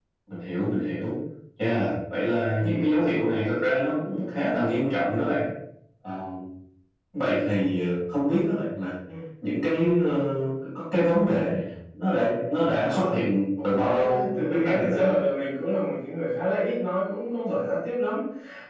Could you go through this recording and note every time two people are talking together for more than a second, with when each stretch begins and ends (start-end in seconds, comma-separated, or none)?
13.6-15.2